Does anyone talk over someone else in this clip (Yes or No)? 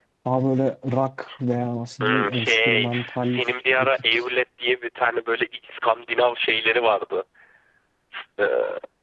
Yes